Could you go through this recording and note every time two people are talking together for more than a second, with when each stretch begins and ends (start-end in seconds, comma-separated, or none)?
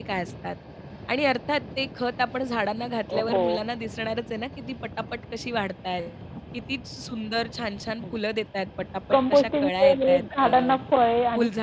9.1-10.7